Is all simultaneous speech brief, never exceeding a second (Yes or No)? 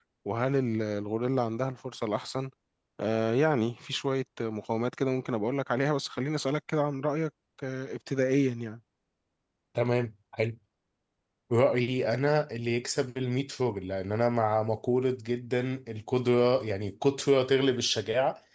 Yes